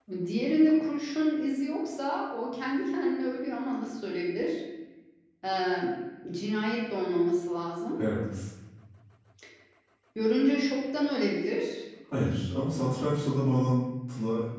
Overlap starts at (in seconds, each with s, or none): none